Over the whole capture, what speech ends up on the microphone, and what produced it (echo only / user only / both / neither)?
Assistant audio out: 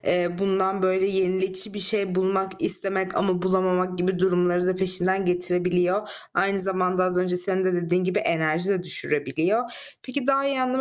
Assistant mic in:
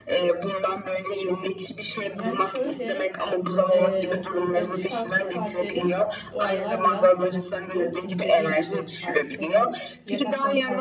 both